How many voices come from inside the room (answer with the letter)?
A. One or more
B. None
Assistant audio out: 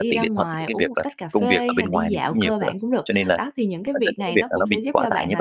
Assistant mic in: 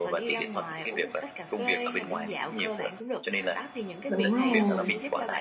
A